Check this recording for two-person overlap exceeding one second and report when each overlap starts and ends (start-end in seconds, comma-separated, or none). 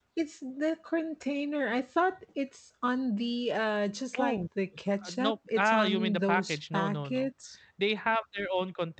5.0-7.3